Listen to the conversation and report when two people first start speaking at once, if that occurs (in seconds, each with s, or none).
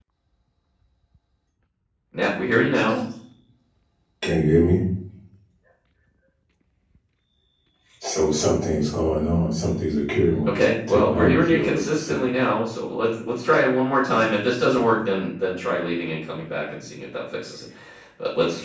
10.4 s